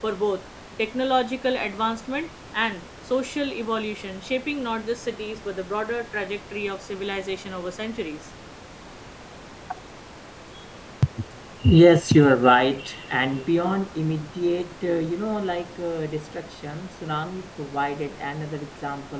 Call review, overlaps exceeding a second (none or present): none